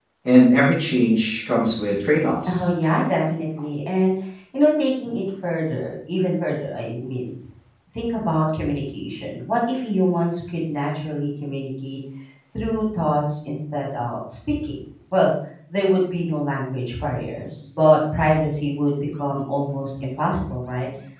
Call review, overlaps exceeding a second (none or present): none